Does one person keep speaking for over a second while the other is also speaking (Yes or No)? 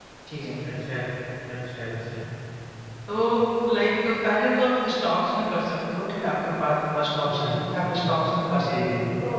No